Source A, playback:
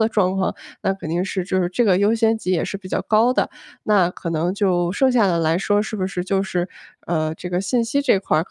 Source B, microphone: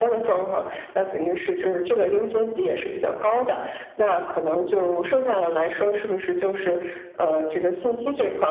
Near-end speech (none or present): none